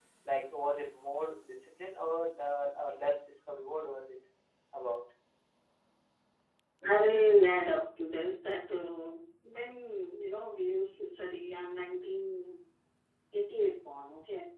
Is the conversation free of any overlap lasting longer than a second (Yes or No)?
Yes